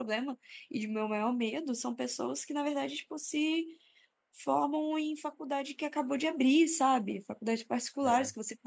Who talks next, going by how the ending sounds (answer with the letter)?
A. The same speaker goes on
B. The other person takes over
A